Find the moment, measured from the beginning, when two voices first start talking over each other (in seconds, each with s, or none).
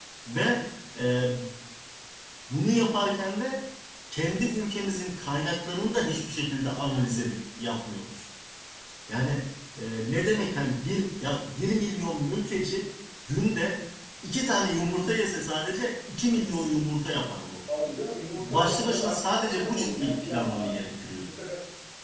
18.4 s